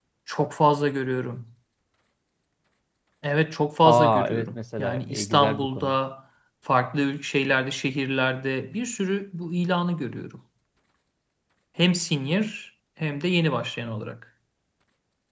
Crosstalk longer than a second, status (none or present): present